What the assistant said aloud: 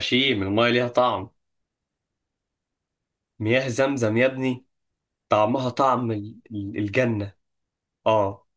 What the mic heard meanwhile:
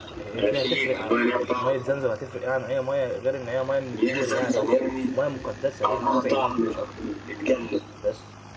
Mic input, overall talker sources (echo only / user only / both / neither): both